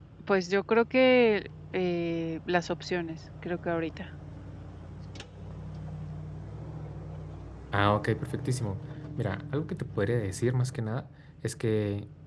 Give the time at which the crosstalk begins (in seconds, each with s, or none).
none